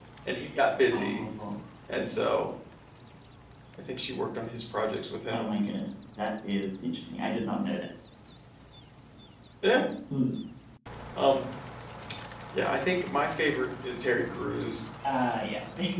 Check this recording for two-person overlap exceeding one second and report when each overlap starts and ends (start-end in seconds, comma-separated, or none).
none